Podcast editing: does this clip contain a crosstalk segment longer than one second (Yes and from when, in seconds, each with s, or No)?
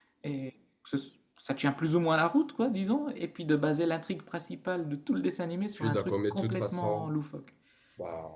Yes, from 5.8 s